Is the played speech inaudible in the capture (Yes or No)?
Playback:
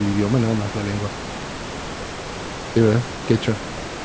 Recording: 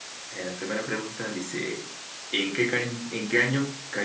Yes